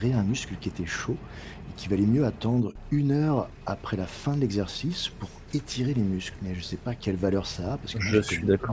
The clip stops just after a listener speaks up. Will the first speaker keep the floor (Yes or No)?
No